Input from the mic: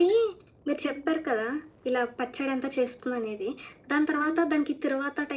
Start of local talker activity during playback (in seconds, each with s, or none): none